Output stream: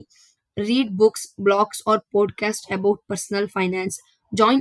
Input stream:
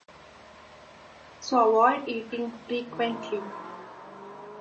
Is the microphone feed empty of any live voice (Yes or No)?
No